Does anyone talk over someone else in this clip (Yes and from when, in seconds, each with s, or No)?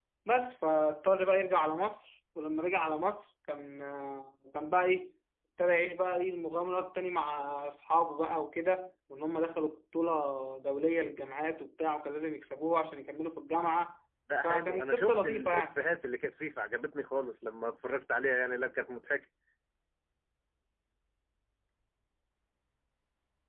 Yes, from 14.3 s